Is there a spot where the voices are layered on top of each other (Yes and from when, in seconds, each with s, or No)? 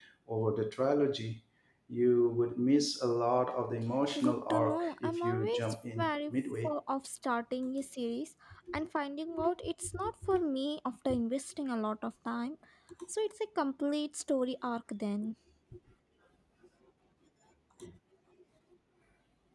Yes, from 4.2 s